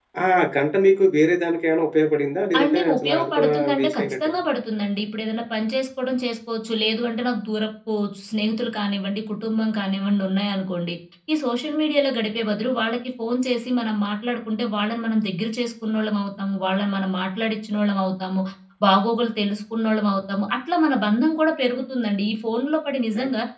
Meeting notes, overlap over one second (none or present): present